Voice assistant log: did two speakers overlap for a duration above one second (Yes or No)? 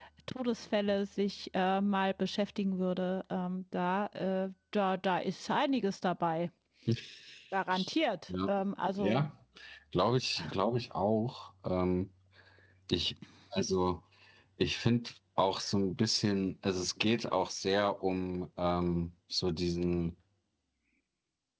No